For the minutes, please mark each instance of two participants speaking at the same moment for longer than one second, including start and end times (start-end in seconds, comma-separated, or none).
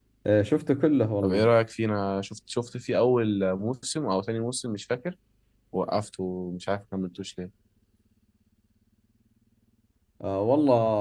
none